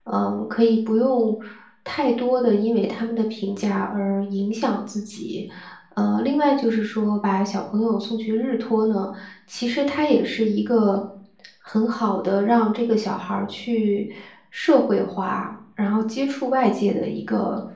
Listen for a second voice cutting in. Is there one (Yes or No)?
No